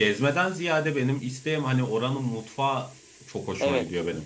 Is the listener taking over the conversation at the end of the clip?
Yes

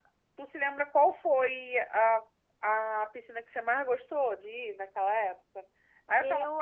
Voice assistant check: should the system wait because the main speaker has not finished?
Yes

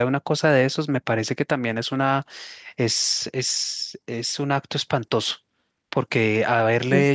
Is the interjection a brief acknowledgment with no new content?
Yes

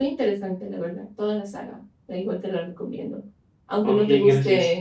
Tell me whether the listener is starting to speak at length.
No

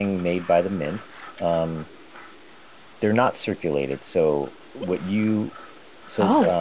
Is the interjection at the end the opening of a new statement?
No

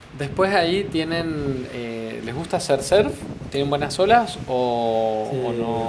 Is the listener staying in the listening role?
No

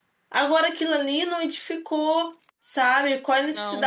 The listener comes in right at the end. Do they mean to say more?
No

